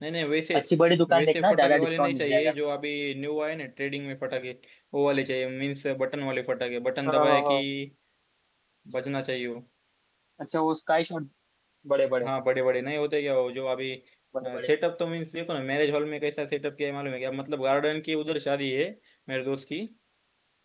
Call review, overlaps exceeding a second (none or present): present